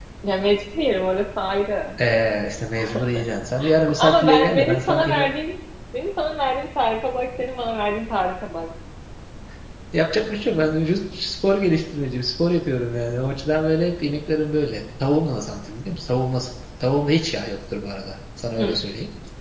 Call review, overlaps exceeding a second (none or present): present